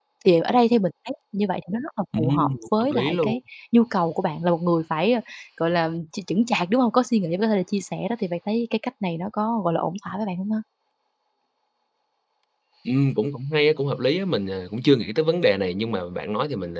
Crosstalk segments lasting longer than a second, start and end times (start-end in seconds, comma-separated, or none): 2.2-3.4